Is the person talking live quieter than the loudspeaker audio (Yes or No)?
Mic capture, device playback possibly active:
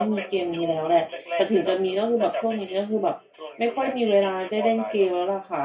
No